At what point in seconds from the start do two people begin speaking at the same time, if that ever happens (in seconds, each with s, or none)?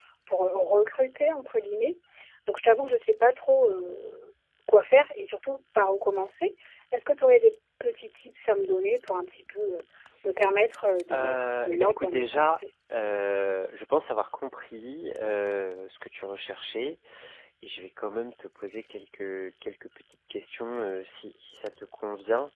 11.1 s